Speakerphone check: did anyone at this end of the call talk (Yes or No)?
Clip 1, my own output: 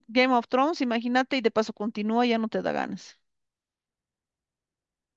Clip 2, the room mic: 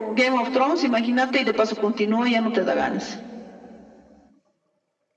No